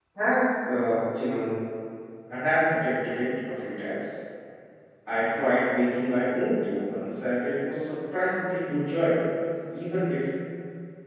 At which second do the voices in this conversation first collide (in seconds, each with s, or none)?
none